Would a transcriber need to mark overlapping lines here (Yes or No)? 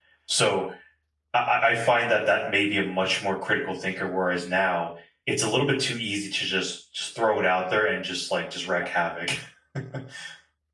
No